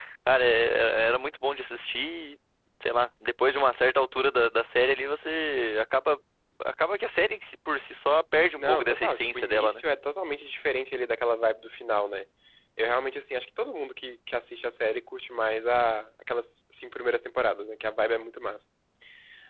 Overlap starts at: 8.6 s

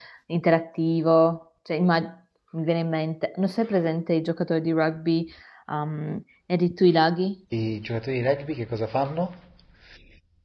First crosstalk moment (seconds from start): none

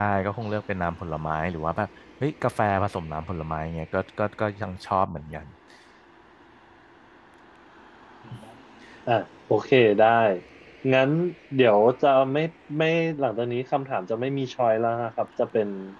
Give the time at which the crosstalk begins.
none

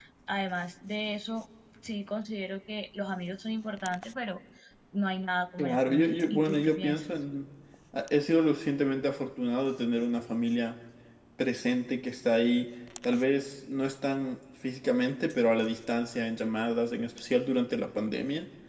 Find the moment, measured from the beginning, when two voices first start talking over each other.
5.6 s

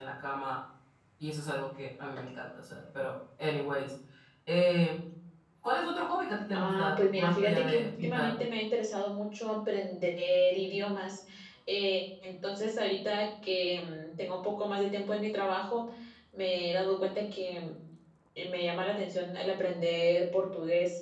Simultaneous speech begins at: 6.5 s

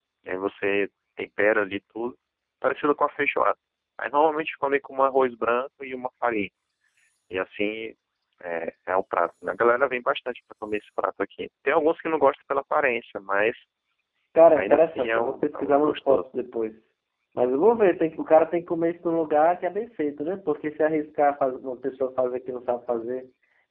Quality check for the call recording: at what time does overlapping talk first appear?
14.5 s

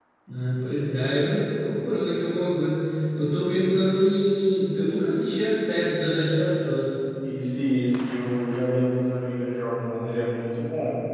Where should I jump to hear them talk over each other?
none

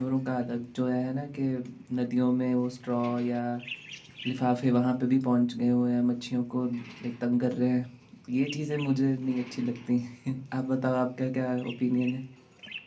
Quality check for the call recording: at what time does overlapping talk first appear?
none

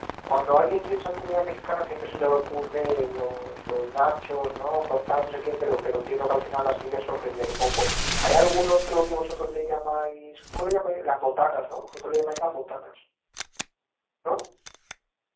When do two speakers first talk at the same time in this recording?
none

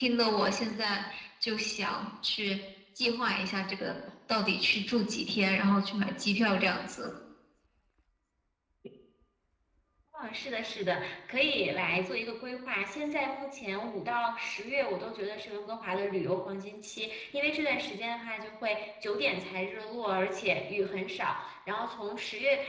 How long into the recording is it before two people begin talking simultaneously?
none

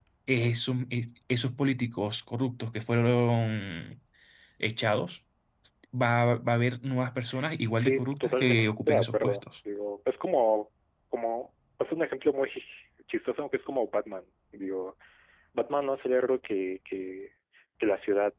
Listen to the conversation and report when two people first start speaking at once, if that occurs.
7.8 s

